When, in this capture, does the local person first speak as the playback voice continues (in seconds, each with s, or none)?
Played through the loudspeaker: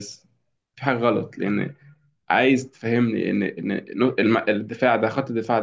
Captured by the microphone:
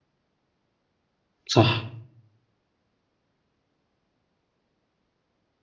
1.5 s